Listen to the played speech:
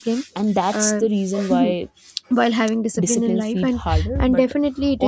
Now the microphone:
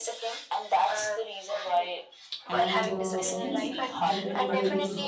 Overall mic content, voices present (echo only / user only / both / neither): both